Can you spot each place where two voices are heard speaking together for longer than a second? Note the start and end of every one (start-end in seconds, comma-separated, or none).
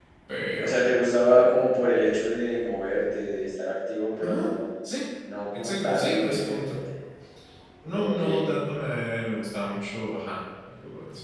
0.6-1.9, 5.5-6.8